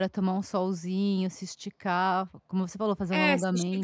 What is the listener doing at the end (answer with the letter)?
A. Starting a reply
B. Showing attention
A